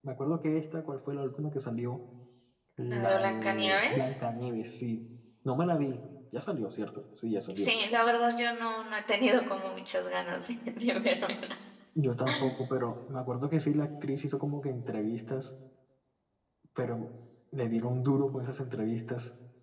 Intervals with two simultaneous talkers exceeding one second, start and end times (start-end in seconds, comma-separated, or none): 2.8-4.1